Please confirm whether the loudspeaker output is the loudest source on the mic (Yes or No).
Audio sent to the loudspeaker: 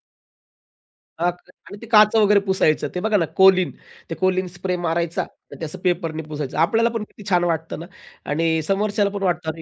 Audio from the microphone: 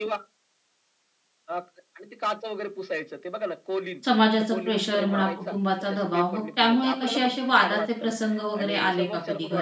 No